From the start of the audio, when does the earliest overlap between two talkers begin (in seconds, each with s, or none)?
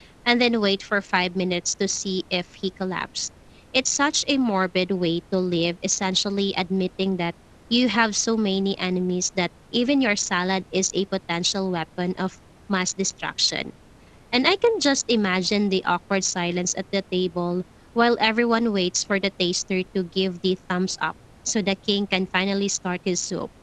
none